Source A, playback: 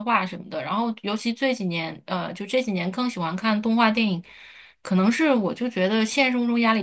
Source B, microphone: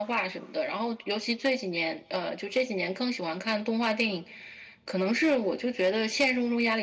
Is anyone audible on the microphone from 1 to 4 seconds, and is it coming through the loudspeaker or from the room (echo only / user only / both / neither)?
echo only